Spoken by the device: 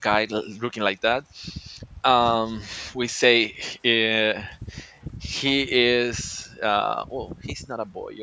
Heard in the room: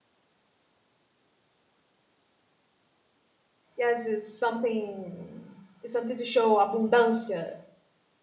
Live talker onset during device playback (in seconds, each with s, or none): 3.8 s